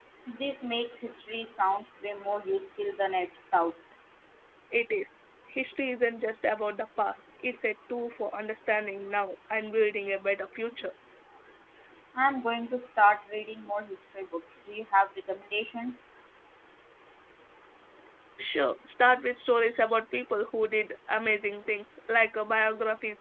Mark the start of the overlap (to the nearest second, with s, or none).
none